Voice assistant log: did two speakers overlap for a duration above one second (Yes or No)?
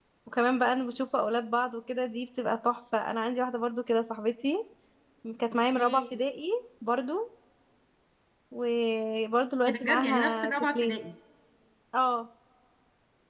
Yes